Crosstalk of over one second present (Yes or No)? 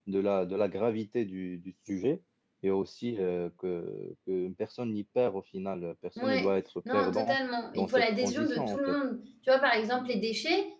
Yes